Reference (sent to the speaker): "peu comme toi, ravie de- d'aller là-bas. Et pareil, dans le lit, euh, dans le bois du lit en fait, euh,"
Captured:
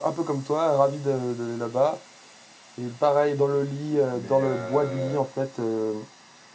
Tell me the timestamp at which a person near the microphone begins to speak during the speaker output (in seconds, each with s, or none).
4.1 s